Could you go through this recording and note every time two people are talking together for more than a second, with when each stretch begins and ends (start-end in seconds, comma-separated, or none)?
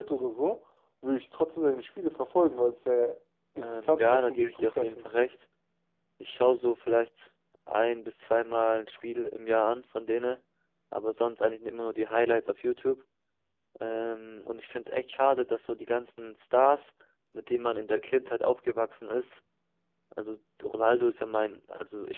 3.6-5.1